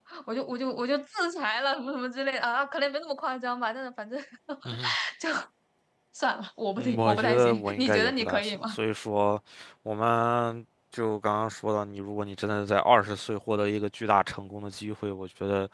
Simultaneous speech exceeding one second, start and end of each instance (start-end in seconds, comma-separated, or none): 6.8-8.7